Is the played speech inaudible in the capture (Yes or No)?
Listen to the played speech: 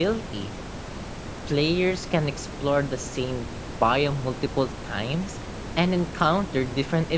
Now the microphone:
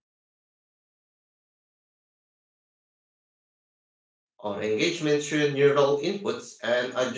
Yes